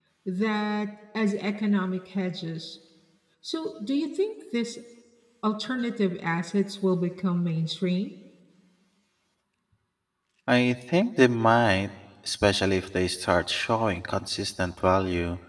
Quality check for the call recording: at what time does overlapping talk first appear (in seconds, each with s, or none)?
none